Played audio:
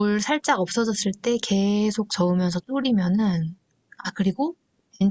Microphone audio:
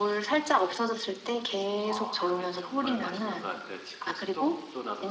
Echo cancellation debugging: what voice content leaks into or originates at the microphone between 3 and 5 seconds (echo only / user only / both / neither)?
both